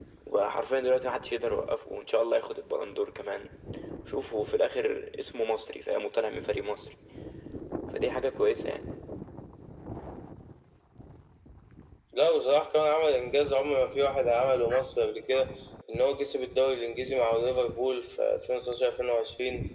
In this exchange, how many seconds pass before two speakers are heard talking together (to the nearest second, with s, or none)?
none